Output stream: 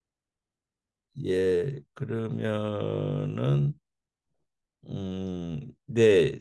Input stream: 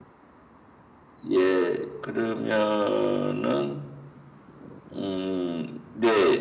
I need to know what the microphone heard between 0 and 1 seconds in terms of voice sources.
neither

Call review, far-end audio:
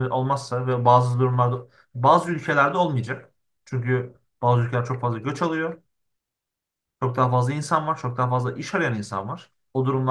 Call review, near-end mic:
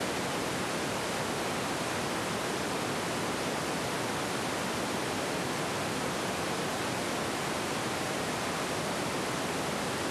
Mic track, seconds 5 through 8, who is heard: neither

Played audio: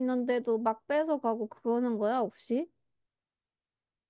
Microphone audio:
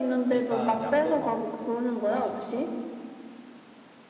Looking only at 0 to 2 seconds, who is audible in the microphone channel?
both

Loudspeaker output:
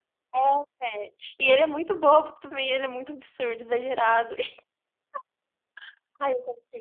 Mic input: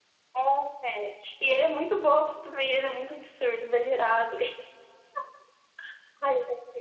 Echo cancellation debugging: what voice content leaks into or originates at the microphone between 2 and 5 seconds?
echo only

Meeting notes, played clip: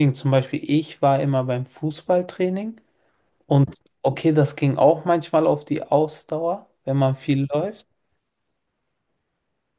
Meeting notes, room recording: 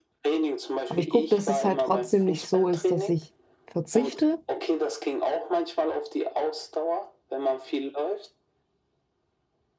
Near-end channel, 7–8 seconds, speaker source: echo only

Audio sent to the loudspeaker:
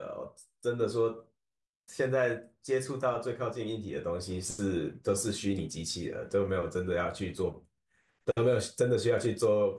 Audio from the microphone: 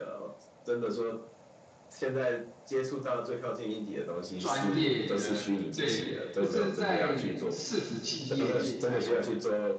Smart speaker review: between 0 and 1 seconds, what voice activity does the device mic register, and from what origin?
echo only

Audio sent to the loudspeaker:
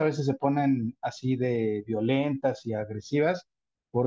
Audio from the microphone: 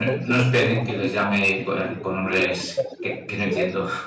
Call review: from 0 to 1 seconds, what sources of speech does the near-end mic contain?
both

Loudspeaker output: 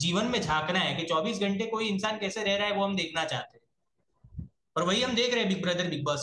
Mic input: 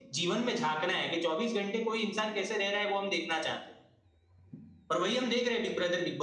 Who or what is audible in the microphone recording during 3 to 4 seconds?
echo only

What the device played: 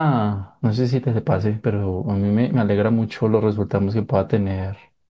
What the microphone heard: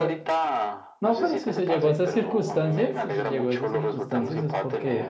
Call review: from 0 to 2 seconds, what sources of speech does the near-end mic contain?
both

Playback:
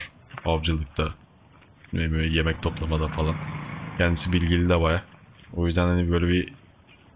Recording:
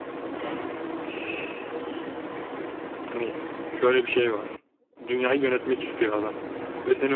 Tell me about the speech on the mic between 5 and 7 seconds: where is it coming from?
user only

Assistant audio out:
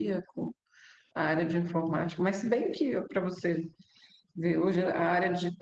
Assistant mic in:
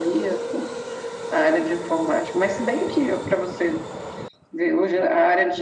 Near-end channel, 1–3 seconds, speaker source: echo only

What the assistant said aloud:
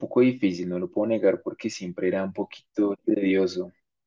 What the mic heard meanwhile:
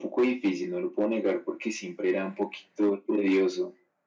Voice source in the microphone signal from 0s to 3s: echo only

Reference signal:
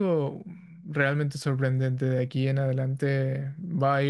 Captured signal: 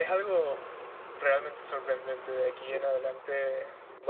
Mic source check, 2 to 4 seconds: echo only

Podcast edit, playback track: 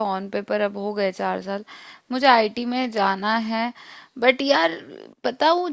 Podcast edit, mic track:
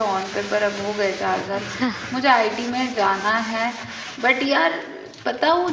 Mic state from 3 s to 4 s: echo only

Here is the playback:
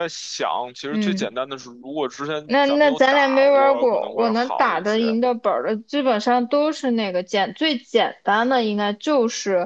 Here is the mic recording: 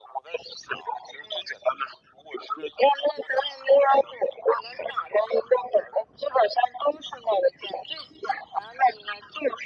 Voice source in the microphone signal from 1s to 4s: echo only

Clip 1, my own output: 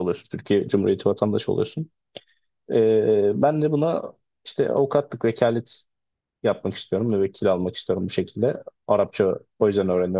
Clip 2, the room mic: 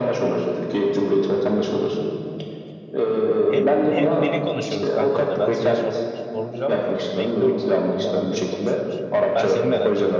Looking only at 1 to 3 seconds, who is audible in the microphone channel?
echo only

